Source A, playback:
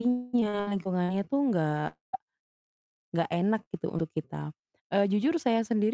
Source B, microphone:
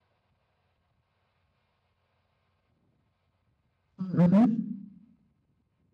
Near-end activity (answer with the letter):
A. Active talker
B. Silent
A